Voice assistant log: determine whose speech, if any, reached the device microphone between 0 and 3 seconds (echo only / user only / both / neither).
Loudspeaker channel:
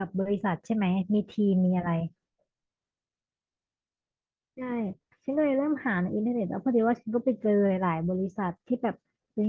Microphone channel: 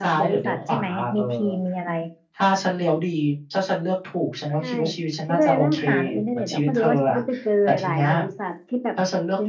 both